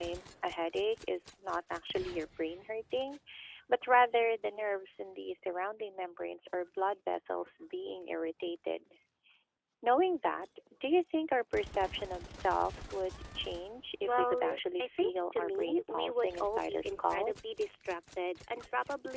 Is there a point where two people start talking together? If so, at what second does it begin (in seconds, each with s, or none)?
14.0 s